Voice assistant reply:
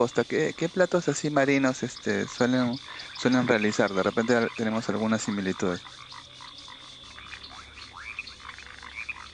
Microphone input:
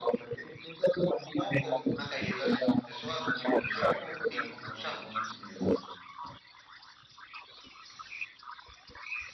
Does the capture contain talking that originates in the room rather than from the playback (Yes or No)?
Yes